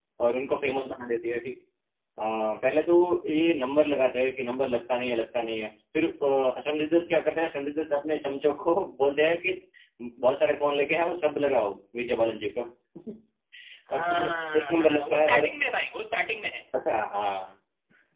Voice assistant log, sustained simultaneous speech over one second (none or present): present